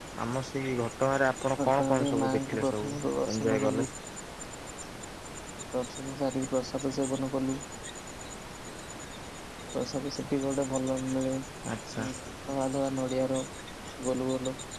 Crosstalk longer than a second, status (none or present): present